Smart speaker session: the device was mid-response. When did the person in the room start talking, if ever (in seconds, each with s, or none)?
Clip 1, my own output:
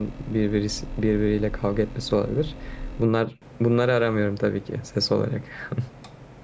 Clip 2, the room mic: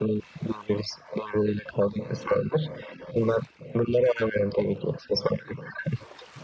none